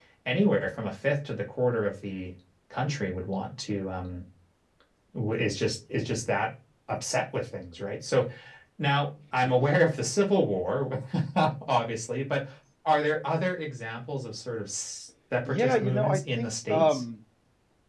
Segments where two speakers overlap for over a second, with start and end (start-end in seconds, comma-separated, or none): 15.4-17.0